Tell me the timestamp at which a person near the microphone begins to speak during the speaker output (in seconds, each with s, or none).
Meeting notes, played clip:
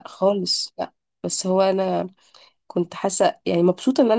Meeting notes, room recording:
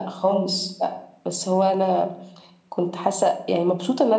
none